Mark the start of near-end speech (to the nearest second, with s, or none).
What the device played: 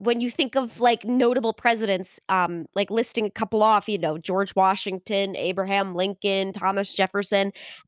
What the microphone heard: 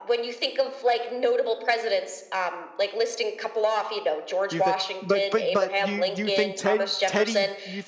5 s